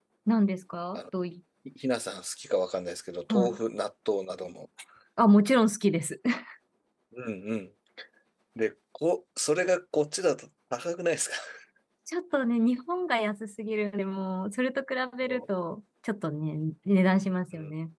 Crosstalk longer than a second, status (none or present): none